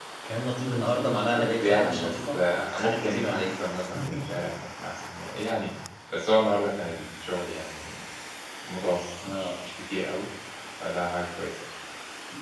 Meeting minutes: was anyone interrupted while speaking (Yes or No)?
Yes